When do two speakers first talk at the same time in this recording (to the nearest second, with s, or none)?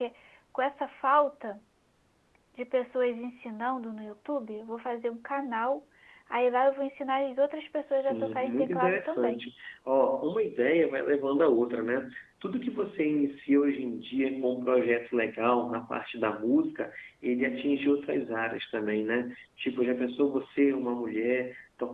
8 s